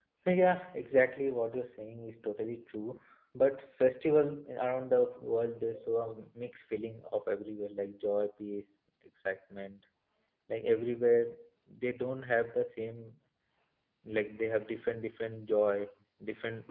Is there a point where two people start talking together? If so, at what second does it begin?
none

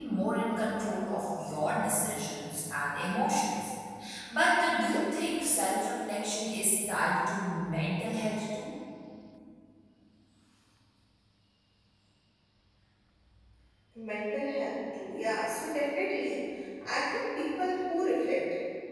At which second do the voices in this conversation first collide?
none

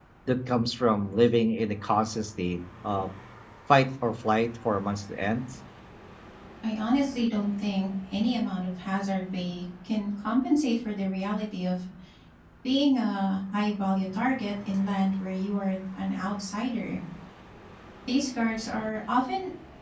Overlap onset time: none

